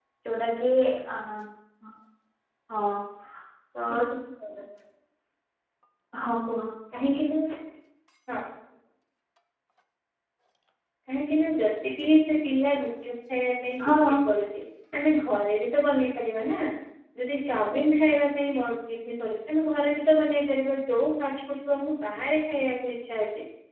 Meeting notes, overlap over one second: none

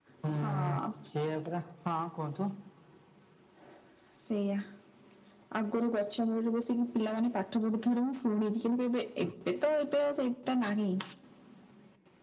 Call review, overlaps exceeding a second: none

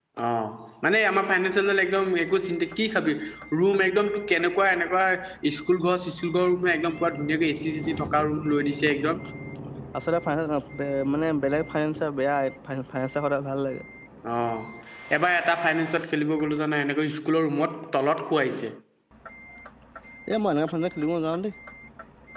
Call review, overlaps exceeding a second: none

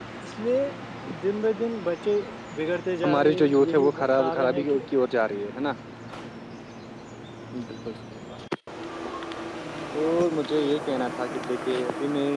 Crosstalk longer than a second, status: present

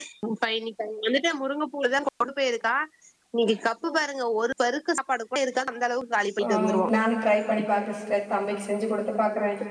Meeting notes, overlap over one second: none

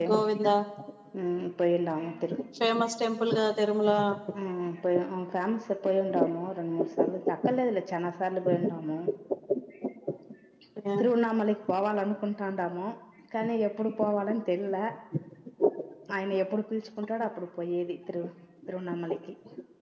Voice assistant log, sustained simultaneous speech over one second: none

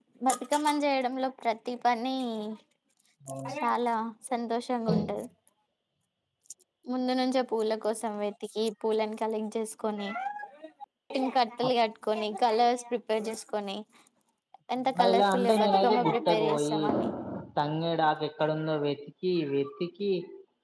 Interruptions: present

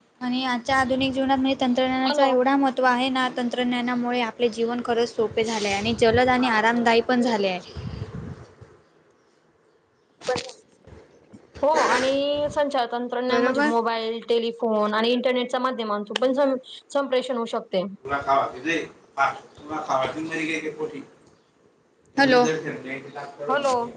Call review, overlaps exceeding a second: none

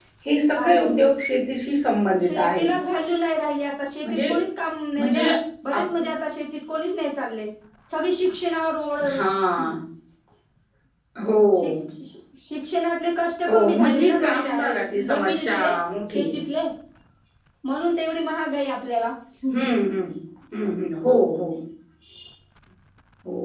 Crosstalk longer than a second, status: present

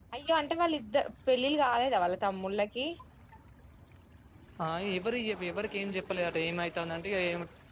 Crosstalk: none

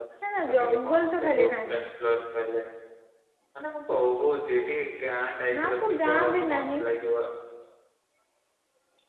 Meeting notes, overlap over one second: present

